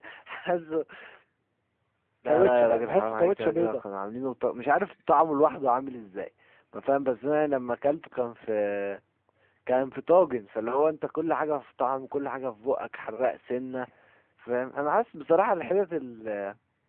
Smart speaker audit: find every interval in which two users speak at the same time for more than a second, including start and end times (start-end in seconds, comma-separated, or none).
2.3-3.8